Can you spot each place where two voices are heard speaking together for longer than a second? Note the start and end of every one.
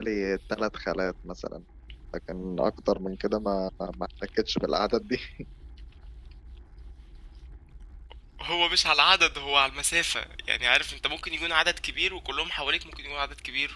none

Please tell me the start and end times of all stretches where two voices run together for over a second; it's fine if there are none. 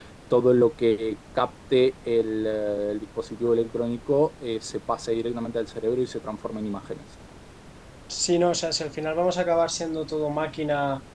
none

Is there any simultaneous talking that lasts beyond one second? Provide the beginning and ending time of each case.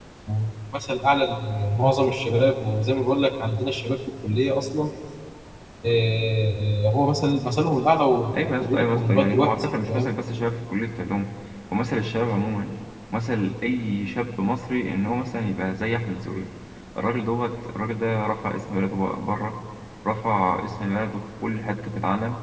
8.4-10.1

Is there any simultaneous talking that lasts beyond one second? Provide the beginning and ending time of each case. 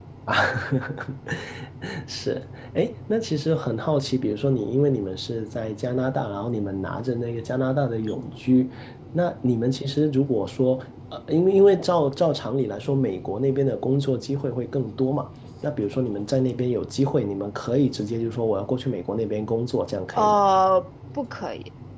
none

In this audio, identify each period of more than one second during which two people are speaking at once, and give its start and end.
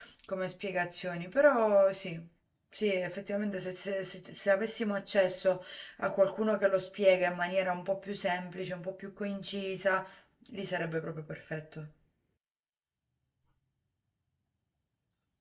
none

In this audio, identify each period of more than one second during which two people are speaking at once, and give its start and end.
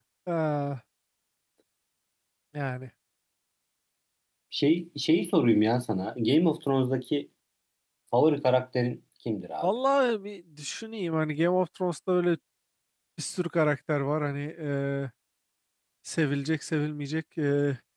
none

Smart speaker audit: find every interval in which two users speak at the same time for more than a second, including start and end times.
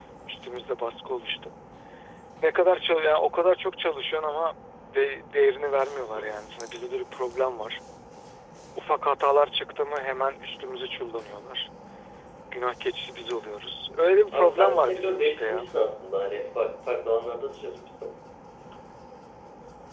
14.3-15.6

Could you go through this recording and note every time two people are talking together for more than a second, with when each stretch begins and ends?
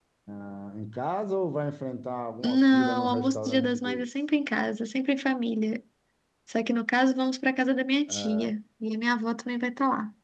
2.4-4.1

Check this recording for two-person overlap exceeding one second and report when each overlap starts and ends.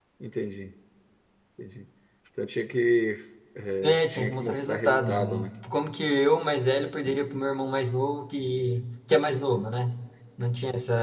3.8-5.5

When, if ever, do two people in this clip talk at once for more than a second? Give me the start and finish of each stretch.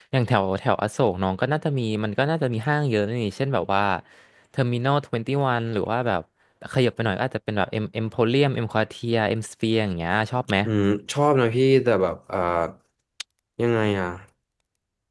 none

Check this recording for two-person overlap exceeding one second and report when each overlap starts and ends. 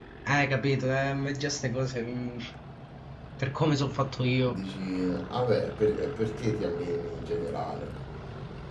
none

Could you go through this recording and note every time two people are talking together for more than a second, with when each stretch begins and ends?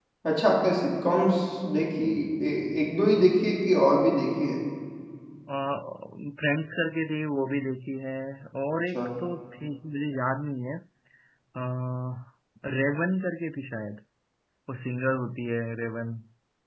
none

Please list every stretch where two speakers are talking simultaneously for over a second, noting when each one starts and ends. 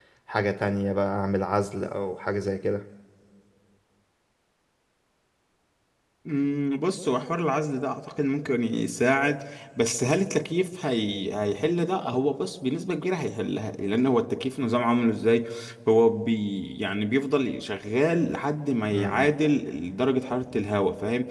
none

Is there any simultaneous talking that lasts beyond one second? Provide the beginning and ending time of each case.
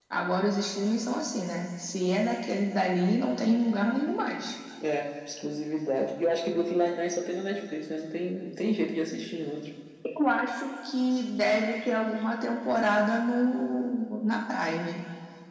none

